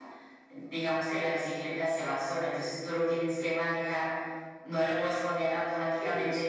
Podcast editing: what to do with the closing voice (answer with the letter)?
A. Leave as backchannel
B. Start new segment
A